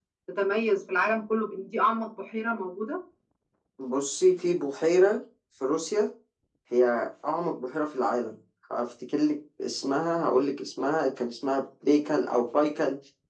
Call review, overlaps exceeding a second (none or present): none